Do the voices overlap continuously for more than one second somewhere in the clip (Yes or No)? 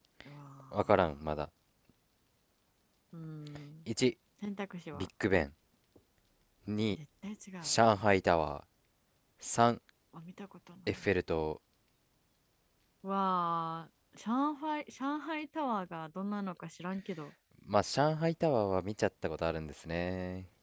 No